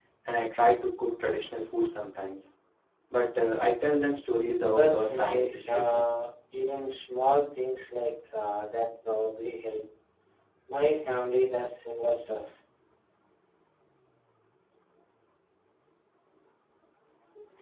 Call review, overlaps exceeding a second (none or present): present